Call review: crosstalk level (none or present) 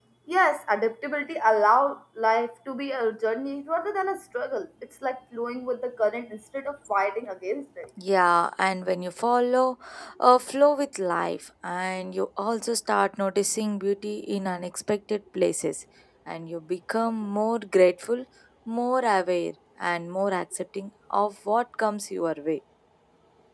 none